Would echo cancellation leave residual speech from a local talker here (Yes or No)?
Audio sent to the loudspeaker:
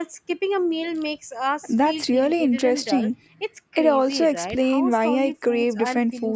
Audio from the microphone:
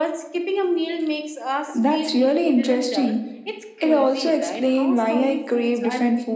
No